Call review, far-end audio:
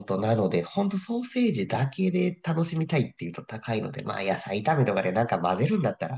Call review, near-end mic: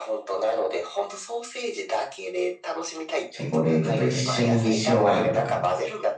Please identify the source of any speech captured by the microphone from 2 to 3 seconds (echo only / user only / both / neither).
echo only